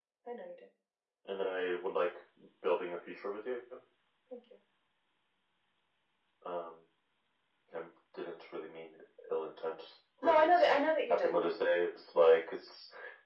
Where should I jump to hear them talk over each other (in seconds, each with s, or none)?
10.2 s